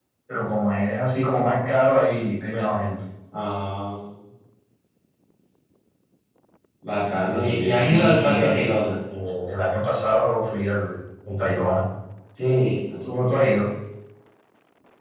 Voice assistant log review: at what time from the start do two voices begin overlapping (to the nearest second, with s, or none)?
7 s